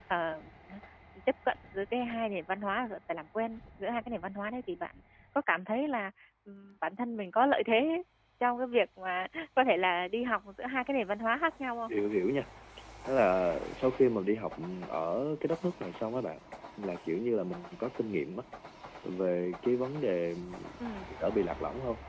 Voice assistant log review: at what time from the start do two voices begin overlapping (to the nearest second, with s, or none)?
none